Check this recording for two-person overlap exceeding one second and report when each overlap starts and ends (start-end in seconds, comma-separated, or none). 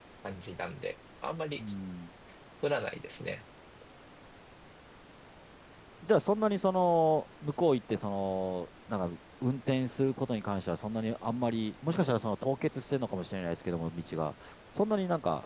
none